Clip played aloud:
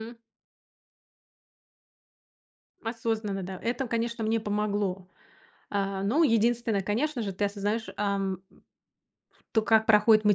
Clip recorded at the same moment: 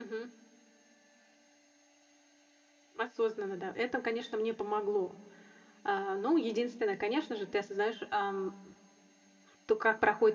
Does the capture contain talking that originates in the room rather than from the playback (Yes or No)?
No